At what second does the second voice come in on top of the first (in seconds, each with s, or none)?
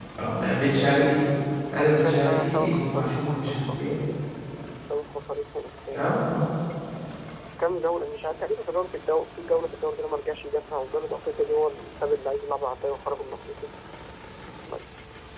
1.8 s